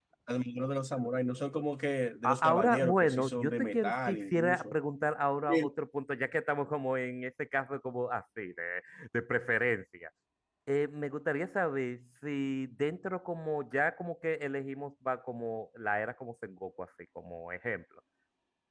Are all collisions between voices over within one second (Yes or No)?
No